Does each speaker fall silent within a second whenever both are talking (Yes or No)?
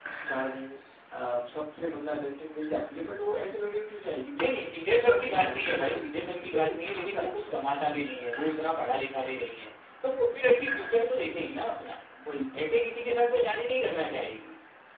No